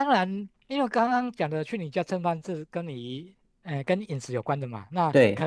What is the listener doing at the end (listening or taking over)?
listening